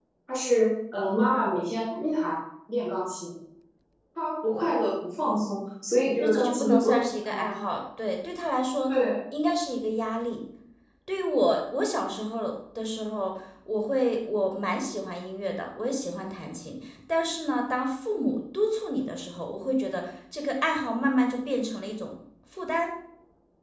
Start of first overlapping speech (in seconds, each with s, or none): 6.2 s